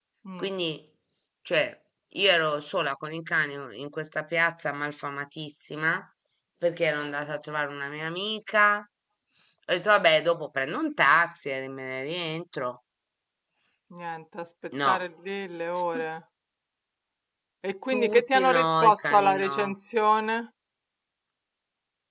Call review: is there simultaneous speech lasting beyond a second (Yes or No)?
Yes